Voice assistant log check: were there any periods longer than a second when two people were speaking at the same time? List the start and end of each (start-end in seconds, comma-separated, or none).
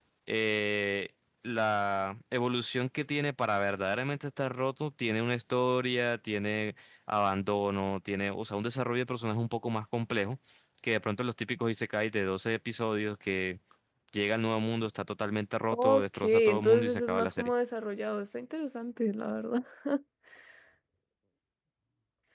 15.7-17.5